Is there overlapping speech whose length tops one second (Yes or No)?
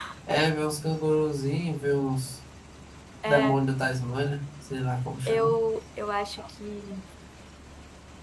No